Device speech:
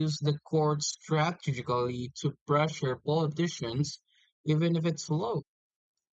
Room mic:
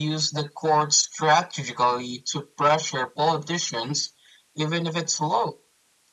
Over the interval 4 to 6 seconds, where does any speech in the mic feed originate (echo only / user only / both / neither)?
echo only